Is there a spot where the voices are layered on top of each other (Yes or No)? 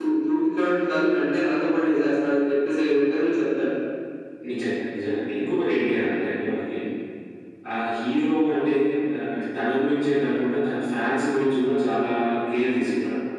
No